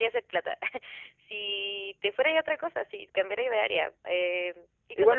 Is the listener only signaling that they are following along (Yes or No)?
No